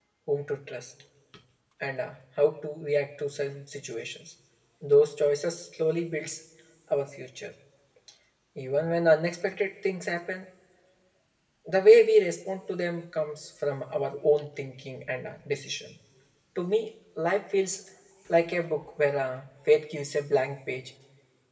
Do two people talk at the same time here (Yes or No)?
No